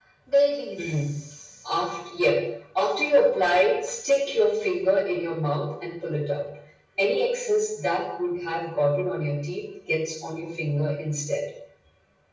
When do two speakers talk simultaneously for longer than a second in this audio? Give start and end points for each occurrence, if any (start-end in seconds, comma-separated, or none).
none